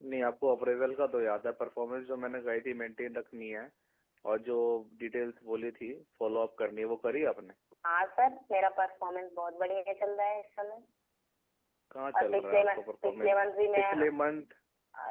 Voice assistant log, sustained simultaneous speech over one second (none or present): present